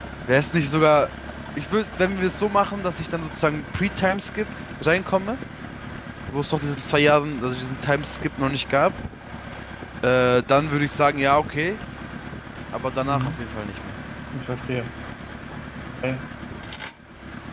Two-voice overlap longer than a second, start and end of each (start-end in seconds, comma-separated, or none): none